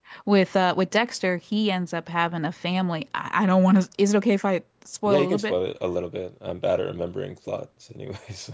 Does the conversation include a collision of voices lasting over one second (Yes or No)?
No